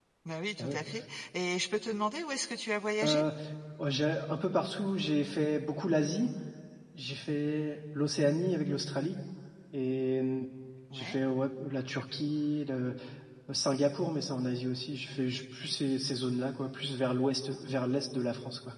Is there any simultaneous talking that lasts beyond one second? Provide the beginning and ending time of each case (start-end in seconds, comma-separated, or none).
none